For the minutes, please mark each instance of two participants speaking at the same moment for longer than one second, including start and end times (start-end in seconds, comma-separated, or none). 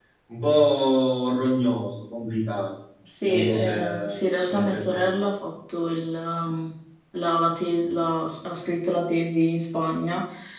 3.2-5.3